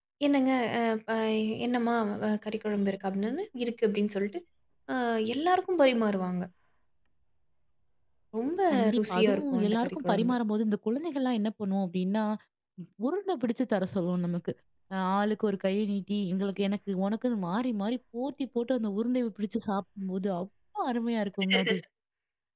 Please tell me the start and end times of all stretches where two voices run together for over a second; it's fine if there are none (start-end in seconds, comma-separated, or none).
9.0-10.4